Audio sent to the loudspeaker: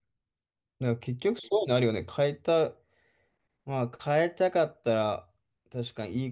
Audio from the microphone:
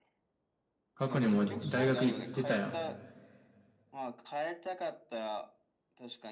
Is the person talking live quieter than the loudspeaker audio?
No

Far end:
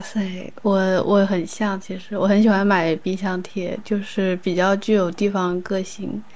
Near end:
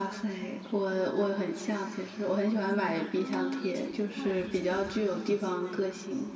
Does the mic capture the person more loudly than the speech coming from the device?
No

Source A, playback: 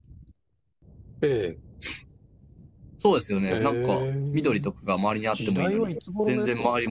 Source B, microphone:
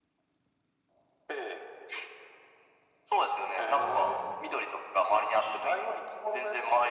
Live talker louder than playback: No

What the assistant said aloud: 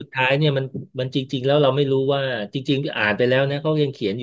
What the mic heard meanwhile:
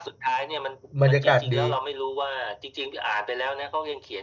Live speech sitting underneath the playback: No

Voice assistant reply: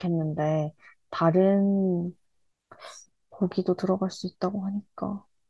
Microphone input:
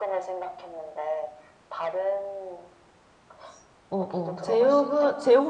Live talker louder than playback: Yes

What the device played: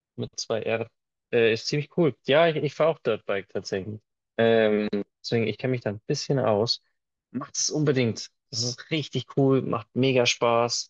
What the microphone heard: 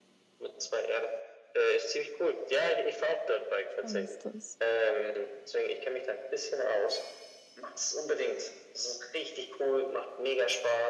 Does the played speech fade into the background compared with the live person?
No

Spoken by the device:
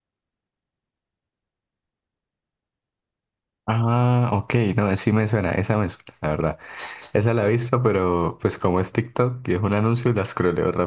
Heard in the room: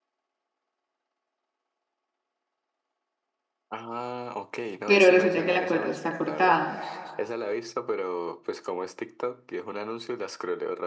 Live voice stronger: Yes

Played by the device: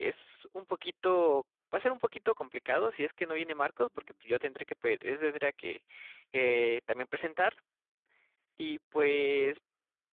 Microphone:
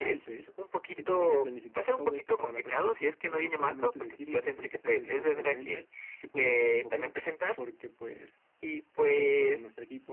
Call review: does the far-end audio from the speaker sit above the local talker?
Yes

